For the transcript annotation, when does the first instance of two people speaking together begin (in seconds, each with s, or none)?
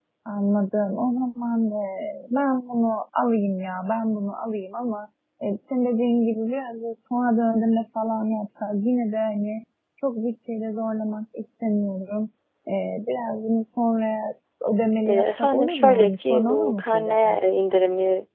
15.1 s